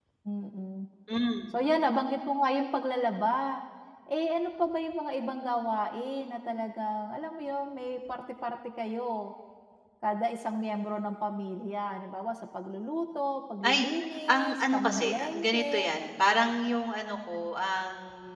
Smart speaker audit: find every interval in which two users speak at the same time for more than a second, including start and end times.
14.3-16.0

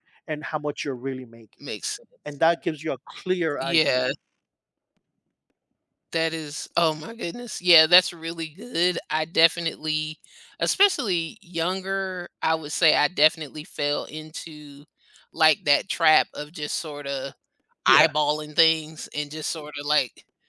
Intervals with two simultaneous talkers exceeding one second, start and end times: none

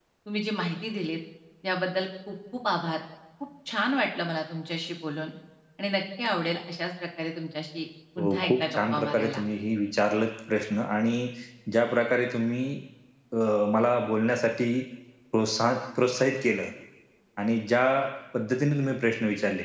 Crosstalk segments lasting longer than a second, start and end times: 8.2-9.4

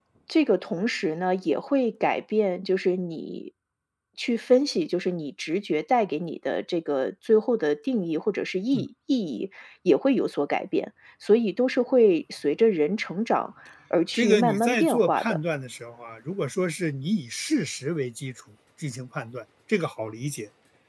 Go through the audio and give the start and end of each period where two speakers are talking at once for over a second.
14.1-15.4

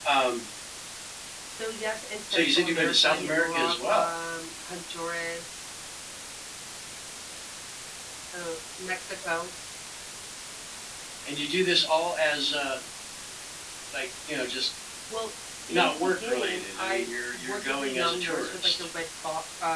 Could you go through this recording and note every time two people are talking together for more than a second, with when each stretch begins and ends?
2.3-4.1, 15.7-18.8

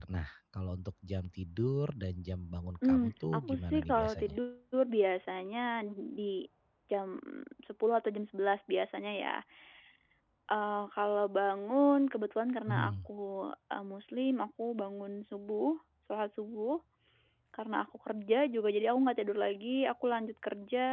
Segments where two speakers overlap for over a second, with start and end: 2.9-4.4

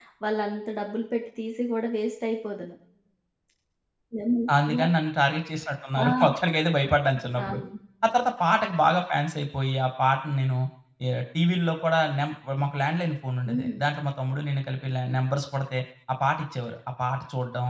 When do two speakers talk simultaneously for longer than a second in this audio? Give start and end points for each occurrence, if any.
none

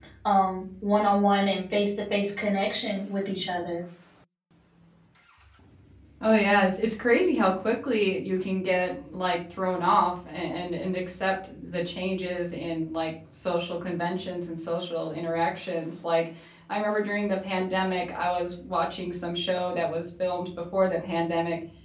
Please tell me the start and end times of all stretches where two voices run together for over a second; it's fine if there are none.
none

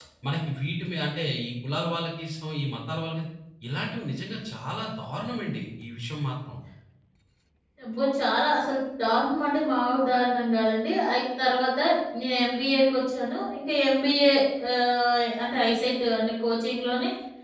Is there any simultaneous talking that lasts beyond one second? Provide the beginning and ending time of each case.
none

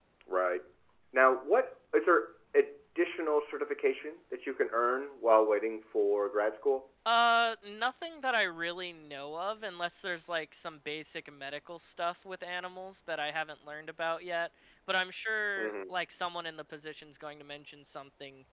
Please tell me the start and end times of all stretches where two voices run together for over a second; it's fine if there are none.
none

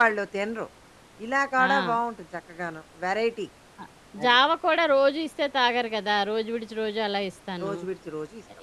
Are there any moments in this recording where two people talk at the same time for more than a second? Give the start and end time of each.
none

